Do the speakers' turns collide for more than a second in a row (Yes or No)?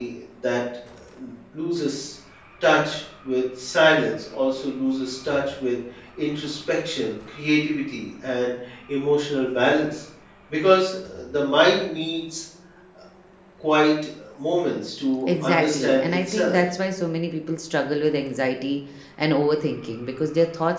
Yes